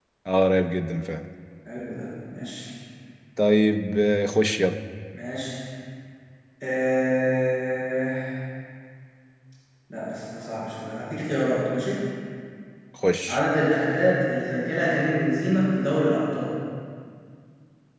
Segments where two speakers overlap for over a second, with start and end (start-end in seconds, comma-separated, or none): none